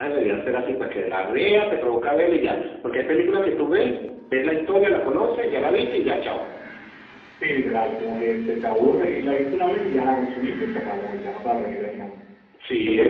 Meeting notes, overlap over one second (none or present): none